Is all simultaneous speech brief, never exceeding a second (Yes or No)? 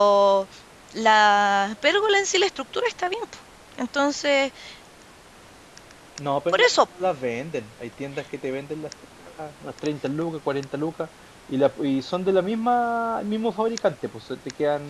Yes